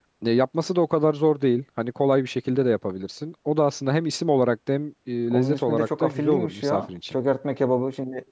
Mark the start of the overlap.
5 s

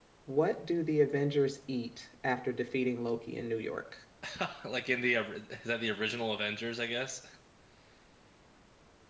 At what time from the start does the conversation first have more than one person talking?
none

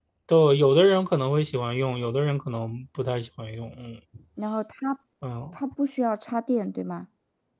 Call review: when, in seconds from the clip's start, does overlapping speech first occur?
none

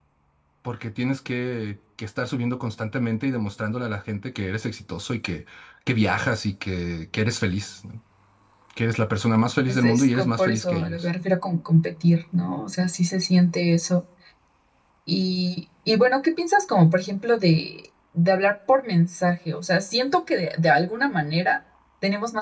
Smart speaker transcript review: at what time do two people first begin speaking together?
10 s

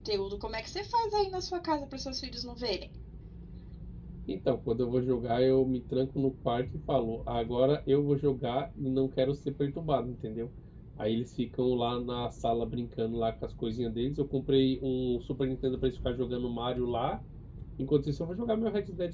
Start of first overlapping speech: none

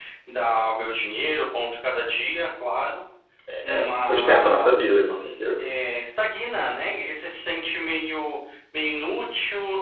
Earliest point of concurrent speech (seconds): 4 s

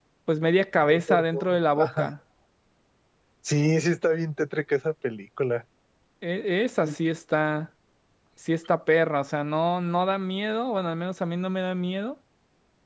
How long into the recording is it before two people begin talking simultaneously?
1 s

